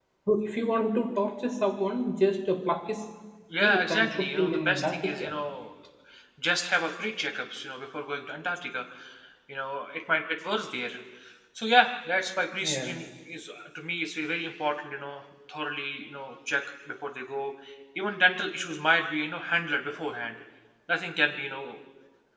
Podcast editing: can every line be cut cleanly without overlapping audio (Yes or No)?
No